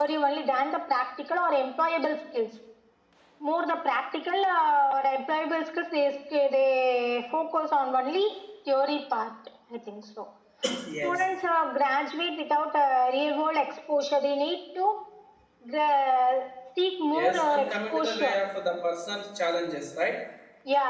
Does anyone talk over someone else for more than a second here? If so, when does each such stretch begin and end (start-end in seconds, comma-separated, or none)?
17.1-18.4